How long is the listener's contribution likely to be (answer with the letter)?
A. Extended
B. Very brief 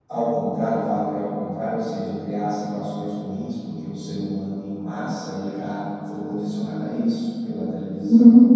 B